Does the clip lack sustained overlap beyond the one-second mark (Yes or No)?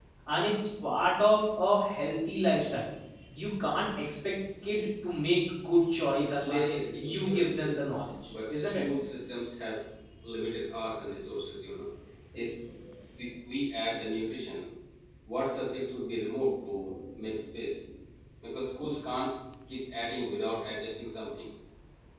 No